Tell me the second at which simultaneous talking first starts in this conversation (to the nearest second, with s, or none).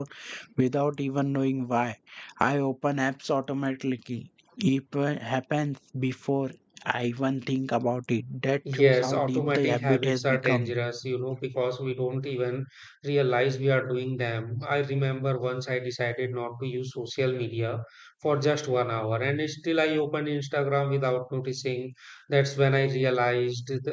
9 s